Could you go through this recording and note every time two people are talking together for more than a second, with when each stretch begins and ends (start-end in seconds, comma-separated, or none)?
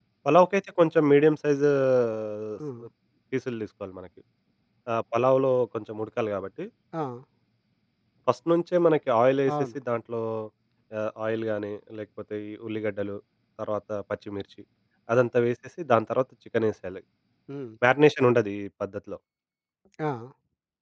none